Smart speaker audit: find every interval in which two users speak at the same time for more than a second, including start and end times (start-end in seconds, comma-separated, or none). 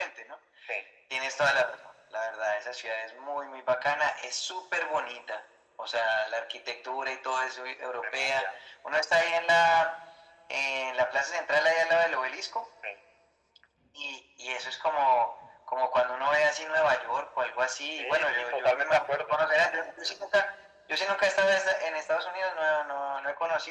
18.0-19.4